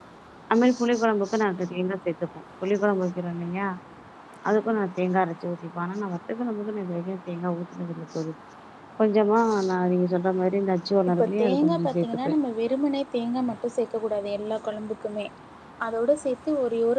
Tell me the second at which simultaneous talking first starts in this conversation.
11.1 s

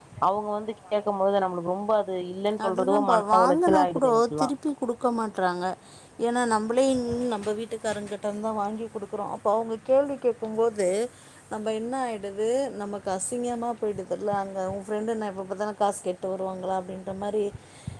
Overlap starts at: 2.6 s

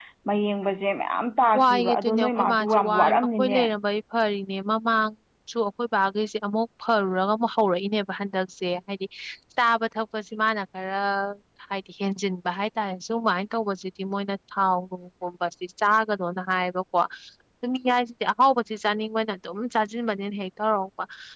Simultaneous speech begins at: 1.5 s

